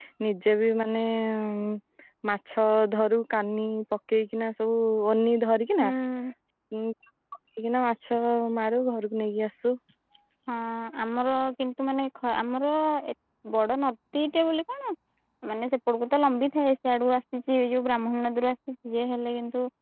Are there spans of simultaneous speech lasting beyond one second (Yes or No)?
No